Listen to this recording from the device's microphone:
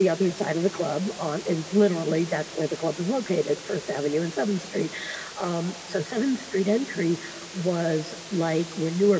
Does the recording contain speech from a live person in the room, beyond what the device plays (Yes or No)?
Yes